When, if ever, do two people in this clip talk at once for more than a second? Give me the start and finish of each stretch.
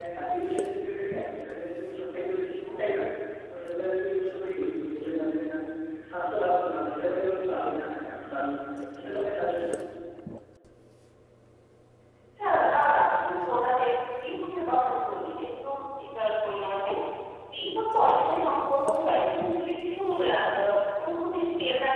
none

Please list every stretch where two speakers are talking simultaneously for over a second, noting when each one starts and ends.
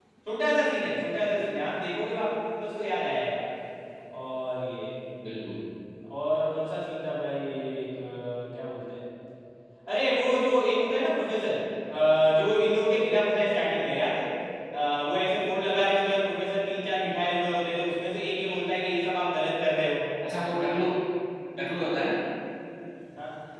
none

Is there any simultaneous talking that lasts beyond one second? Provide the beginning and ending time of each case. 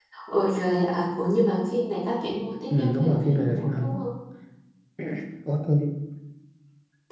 2.7-4.0

